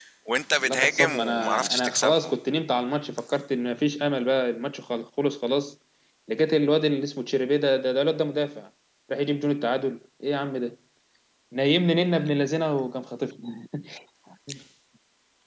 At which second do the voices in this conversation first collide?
0.5 s

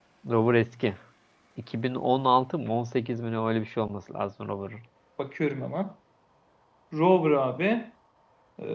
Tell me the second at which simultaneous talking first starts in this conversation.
none

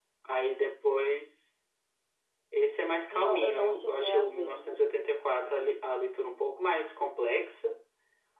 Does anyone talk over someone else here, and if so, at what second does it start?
3.1 s

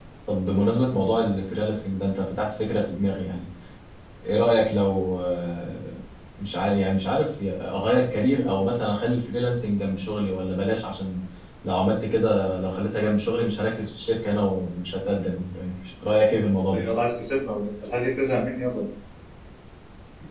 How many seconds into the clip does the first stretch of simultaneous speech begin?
none

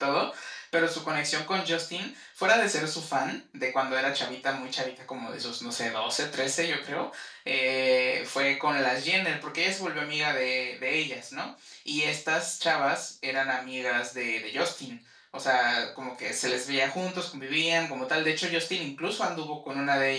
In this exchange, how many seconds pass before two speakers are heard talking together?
none

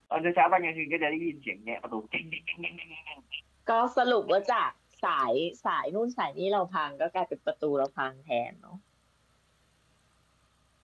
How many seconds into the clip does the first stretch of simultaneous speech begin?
none

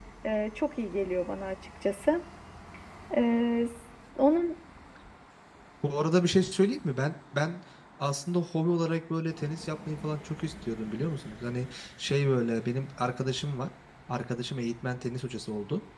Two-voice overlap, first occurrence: none

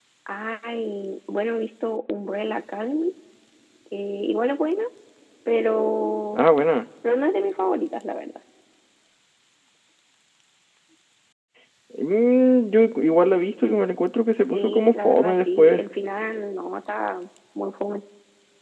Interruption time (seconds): 14.3 s

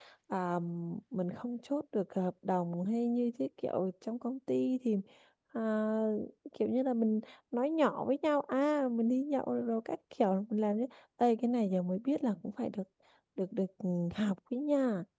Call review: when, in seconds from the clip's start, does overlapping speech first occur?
none

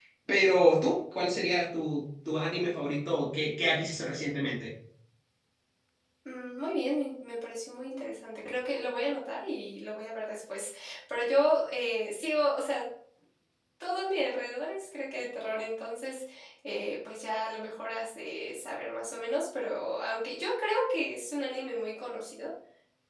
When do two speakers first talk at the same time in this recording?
none

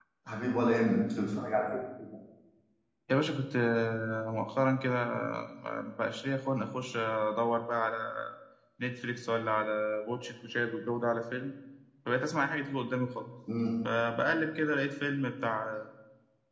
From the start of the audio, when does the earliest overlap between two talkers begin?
none

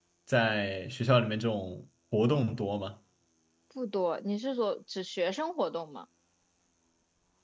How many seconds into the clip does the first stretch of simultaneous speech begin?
none

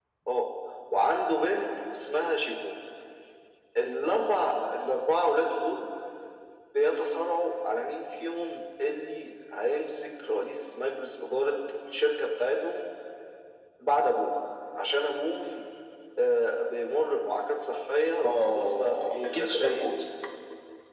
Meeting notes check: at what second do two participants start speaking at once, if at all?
18.2 s

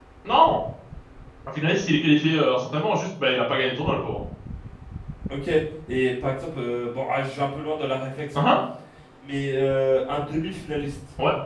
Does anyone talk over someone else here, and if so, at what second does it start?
none

